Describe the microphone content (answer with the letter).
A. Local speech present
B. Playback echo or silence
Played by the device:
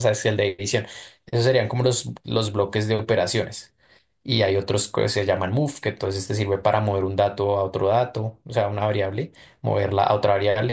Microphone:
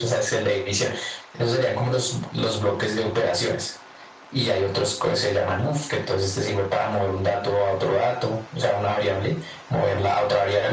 B